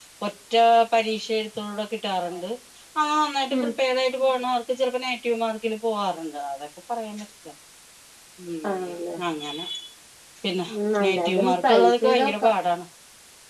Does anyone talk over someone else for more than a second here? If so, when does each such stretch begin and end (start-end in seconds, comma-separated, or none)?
11.0-12.5